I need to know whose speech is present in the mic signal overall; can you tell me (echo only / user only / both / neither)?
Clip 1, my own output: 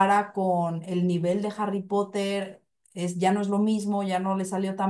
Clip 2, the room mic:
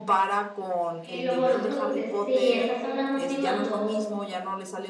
both